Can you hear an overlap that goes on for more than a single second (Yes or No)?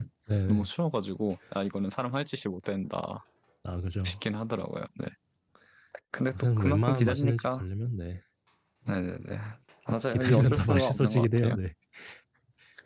Yes